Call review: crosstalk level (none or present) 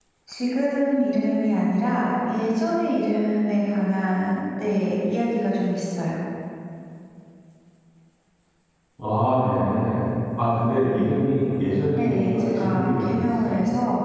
present